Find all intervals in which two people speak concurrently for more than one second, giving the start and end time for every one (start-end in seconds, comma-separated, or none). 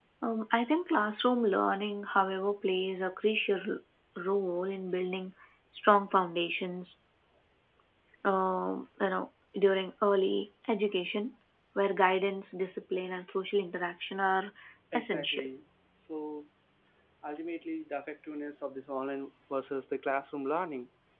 none